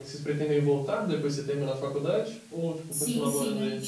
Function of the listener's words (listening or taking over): taking over